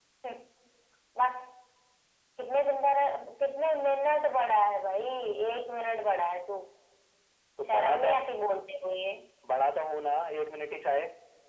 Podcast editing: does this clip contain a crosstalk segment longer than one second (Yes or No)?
No